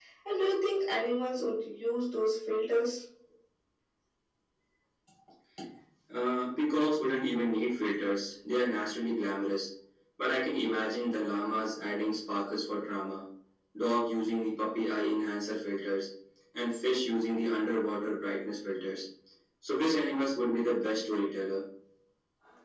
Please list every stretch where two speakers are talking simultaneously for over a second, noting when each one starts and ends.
none

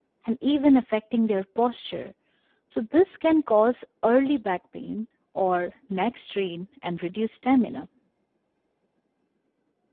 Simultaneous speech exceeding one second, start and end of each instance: none

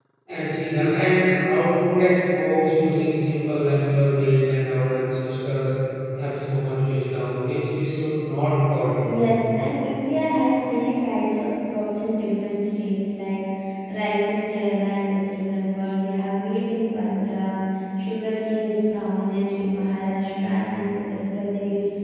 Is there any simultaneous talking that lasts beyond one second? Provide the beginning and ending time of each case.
none

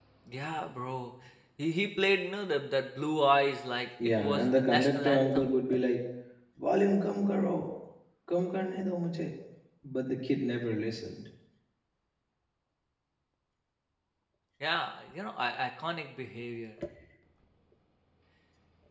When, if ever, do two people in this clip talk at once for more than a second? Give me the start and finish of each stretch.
4.2-5.5

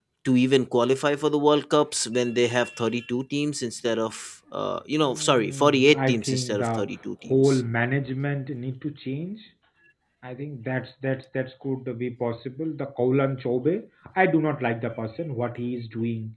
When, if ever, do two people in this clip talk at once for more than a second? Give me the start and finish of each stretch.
5.0-6.9

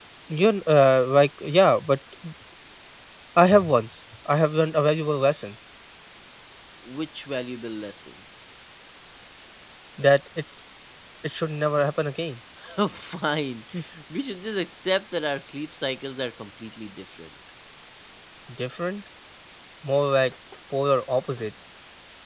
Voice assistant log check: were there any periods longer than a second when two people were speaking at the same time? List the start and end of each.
none

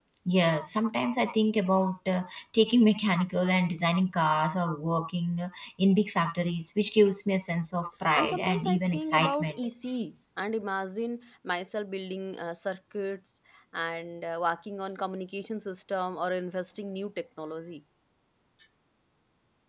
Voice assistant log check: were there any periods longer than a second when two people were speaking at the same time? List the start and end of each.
8.2-9.6

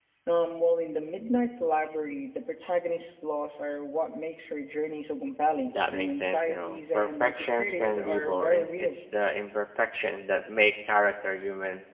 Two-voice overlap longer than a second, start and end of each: 5.7-9.0

